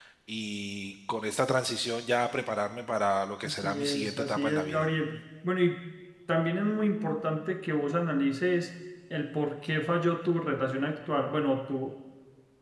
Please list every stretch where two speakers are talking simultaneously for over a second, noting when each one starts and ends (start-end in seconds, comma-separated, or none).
3.5-4.8